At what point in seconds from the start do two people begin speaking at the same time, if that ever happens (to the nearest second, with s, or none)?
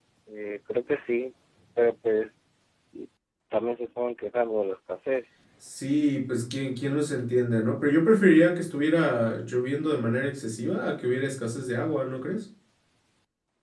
none